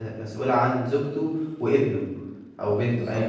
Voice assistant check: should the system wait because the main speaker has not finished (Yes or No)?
Yes